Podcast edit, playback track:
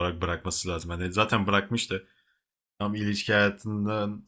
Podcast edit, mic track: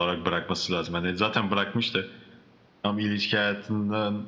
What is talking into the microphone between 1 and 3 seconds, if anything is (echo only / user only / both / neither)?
echo only